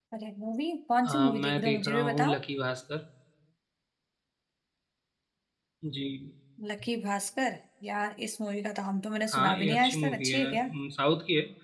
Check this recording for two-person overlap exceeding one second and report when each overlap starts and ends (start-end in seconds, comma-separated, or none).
1.0-2.4, 9.3-10.7